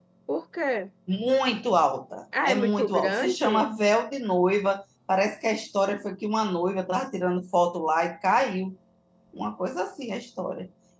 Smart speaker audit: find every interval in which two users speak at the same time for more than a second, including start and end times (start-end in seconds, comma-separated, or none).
2.5-3.7